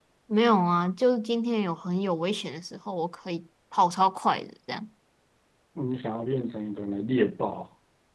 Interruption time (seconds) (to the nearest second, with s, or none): none